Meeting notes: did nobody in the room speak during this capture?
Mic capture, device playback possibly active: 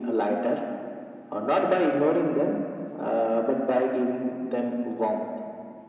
Yes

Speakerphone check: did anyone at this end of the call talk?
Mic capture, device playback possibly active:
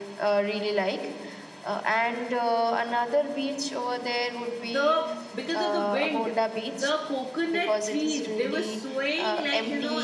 Yes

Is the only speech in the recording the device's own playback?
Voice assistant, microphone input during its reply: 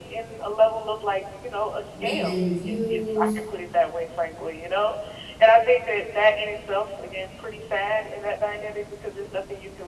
No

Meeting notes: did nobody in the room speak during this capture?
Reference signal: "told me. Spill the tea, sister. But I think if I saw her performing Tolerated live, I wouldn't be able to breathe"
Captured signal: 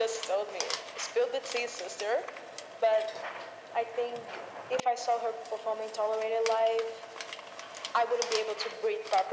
Yes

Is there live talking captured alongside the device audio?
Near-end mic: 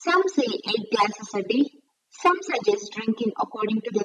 No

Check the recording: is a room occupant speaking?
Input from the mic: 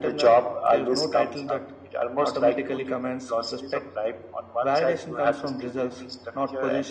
No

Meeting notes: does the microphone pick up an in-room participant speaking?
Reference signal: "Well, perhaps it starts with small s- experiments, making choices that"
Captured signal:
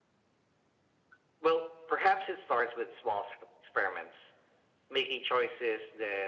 No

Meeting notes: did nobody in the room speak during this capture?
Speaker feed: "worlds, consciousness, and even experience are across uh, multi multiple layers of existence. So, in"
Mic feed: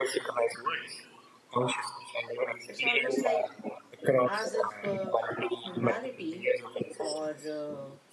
No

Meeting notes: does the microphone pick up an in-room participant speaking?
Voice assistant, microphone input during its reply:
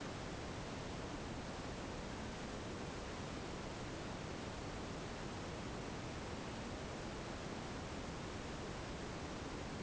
No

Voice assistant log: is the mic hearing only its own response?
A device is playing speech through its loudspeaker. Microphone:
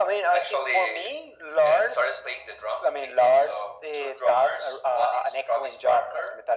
Yes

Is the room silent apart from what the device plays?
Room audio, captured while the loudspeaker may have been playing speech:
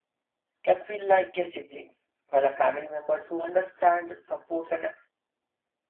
No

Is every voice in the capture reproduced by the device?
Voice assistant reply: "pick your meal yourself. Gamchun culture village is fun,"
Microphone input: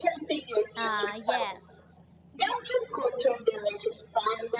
No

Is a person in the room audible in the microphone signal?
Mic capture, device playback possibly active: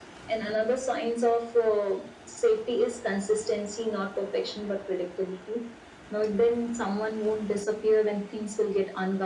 No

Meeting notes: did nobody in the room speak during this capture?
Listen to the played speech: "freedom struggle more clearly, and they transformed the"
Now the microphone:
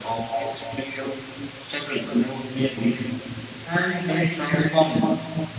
Yes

